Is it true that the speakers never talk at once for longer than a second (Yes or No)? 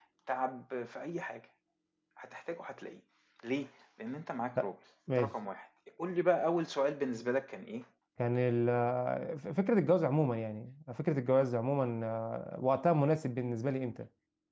Yes